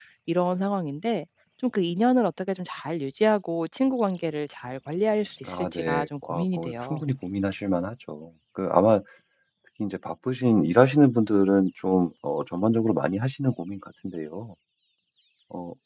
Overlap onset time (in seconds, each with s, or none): 5.5 s